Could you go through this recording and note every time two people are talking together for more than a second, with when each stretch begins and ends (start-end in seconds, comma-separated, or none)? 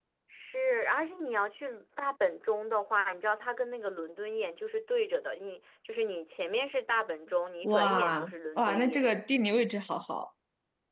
7.6-9.1